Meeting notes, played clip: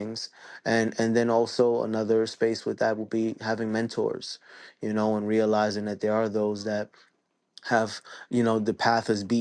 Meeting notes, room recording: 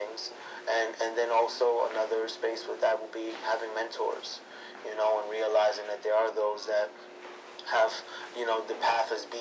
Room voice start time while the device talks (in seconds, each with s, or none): none